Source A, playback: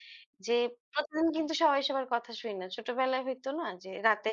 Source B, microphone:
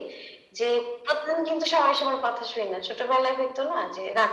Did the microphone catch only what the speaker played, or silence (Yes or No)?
Yes